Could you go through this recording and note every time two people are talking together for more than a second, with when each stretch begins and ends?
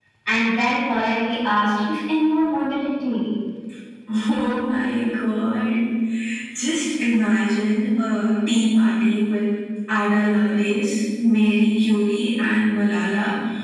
none

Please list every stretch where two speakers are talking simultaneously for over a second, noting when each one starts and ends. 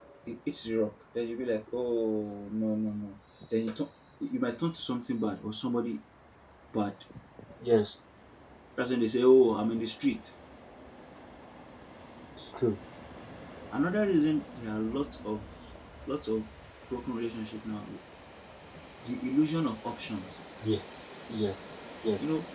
none

